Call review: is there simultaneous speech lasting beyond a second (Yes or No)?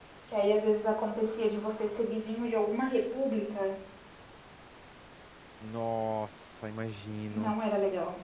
No